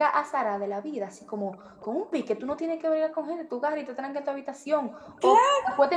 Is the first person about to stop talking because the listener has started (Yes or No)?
No